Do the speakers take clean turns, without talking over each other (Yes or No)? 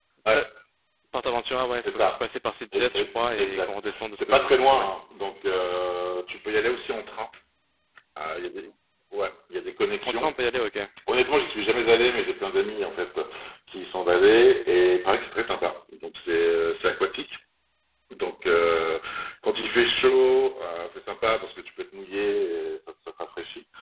No